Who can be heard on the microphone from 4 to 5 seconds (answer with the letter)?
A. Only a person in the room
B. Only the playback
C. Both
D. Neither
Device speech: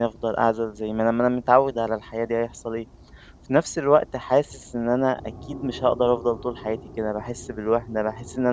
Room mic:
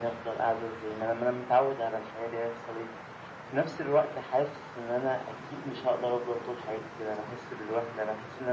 B